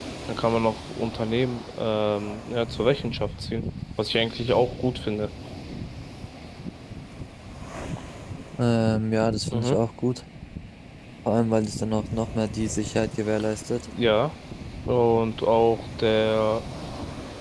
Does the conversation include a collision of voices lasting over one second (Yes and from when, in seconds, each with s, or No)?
No